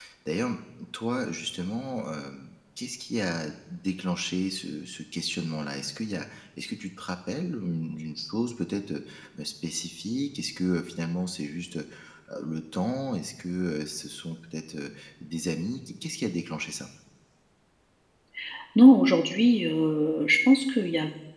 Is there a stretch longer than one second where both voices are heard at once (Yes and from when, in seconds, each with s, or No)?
No